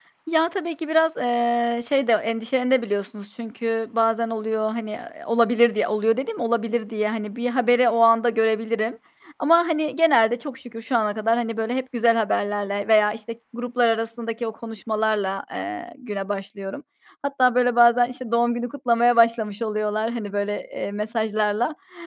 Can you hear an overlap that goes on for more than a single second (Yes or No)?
No